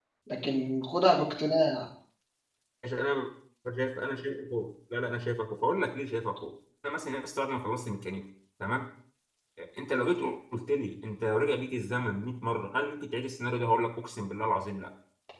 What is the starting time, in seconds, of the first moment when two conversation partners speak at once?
none

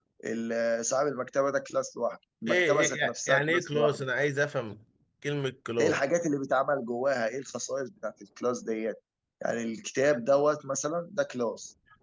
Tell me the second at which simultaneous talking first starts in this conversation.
2.5 s

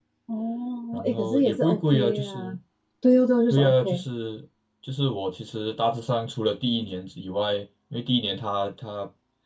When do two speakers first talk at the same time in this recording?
0.9 s

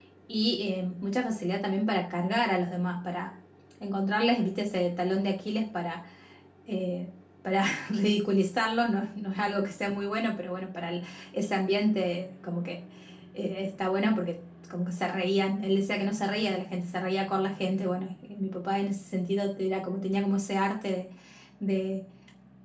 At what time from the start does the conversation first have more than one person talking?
none

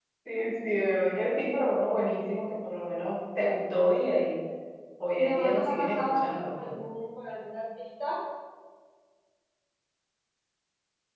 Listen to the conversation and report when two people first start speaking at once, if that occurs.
5.2 s

